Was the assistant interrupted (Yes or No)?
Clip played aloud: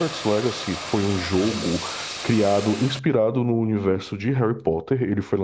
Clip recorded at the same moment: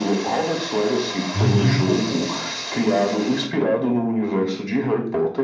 Yes